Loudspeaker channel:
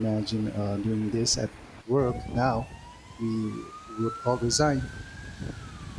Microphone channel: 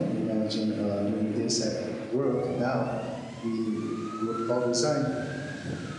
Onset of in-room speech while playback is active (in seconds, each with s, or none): none